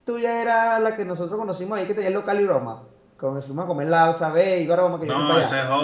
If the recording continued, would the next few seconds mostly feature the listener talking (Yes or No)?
Yes